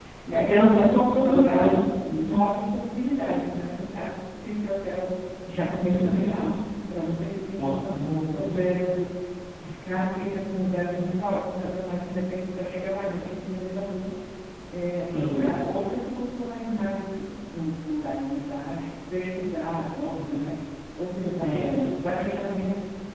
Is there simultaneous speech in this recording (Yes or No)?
Yes